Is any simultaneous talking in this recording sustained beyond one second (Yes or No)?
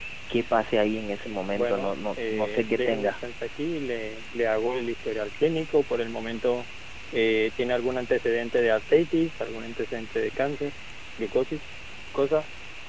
Yes